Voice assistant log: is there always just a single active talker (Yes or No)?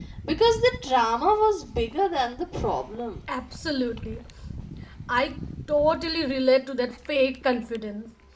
Yes